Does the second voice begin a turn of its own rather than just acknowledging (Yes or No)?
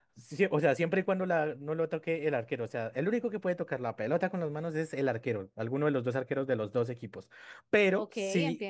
No